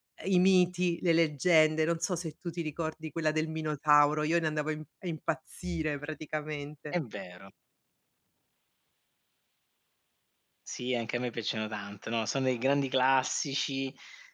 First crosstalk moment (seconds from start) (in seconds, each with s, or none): none